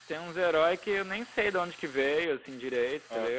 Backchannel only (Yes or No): Yes